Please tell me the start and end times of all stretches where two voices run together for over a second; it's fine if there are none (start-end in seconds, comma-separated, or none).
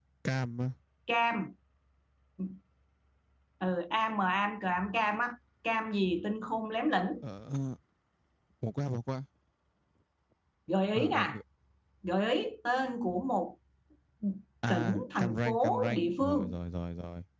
14.7-16.6